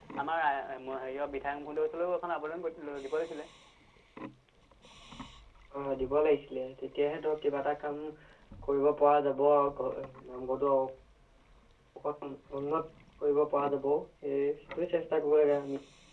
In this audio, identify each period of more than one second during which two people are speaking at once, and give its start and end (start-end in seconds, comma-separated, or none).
none